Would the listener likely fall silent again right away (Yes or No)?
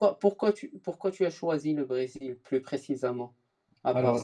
No